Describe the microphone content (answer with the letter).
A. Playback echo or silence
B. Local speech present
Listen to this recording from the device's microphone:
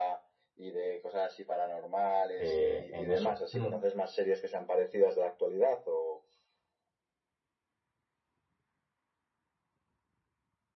B